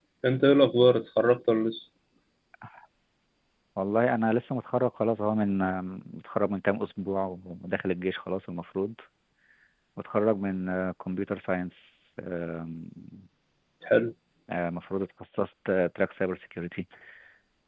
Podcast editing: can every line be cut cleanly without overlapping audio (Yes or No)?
Yes